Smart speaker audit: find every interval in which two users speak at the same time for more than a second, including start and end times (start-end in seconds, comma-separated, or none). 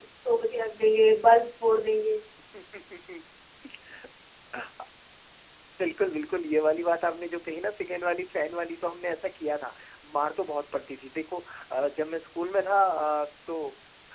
none